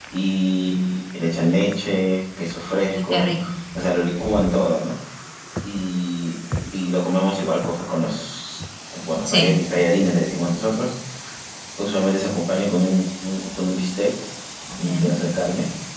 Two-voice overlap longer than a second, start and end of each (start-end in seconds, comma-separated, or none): none